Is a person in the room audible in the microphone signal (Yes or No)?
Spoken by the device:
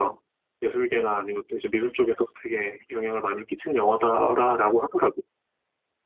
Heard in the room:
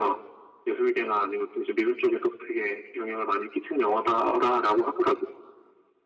No